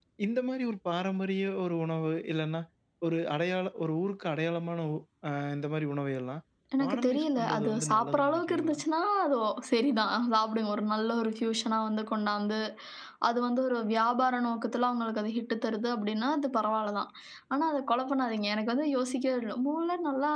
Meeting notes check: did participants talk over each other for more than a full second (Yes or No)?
Yes